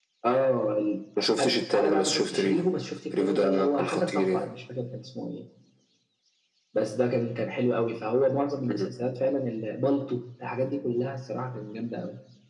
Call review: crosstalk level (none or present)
present